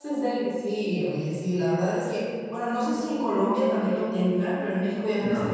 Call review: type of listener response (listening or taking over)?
listening